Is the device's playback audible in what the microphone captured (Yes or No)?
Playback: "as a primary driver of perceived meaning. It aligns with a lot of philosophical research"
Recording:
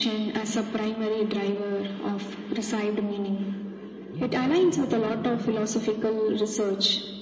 Yes